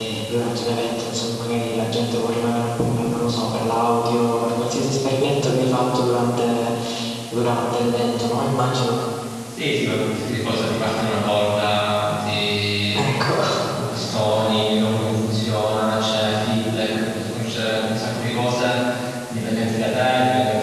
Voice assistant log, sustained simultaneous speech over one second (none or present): none